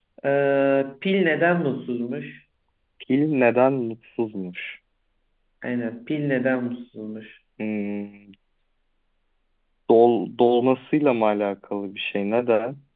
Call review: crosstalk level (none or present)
none